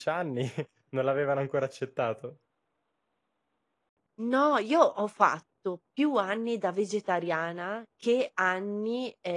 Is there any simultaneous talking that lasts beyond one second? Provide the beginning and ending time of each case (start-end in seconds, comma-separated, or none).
none